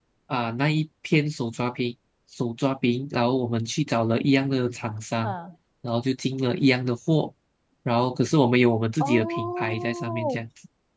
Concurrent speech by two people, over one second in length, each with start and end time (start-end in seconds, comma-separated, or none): 9.0-10.4